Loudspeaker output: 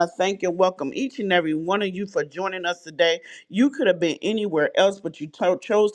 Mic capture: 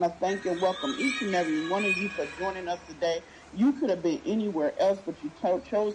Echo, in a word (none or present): present